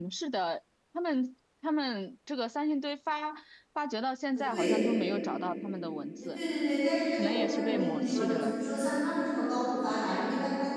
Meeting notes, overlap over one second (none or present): present